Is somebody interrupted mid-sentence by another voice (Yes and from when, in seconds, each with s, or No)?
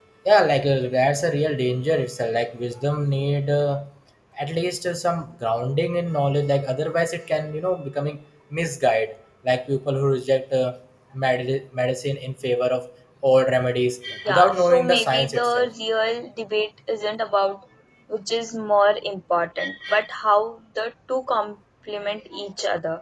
Yes, from 14.2 s